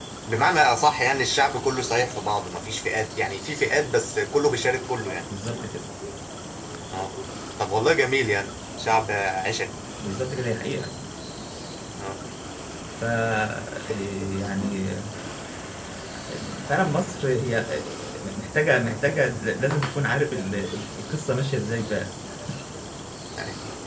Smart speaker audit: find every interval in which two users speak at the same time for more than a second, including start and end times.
none

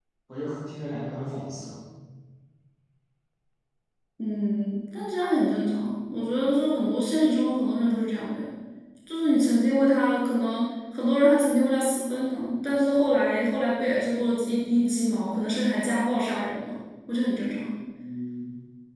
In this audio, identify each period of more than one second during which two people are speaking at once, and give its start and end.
none

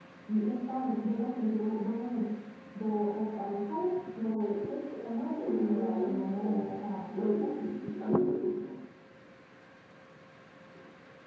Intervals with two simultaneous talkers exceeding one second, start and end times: 5.4-6.8

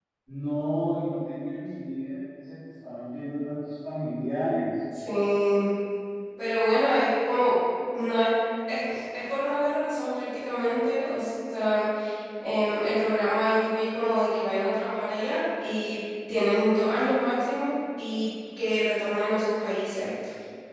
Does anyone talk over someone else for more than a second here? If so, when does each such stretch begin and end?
none

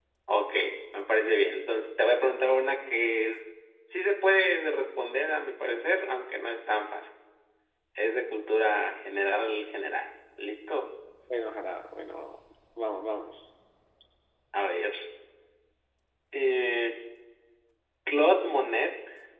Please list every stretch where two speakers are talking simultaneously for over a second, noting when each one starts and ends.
none

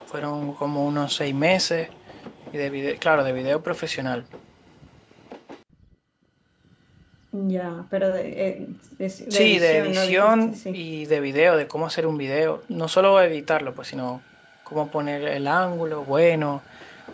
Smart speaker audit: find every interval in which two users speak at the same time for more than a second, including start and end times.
9.3-10.8

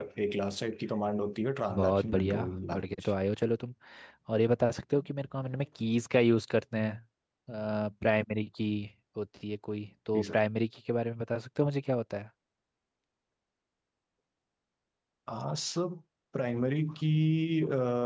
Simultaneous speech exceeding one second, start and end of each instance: 1.7-3.1

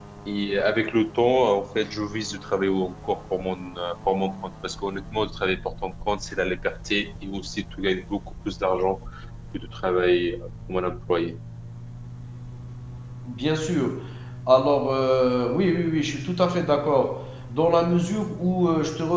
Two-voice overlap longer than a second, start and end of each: none

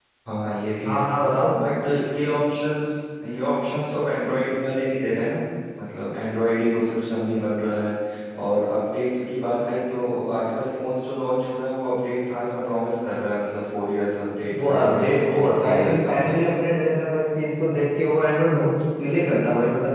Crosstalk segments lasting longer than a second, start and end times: 14.6-16.3

